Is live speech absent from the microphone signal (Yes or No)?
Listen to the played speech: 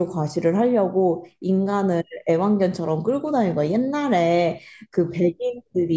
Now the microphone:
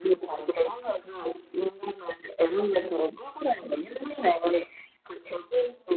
Yes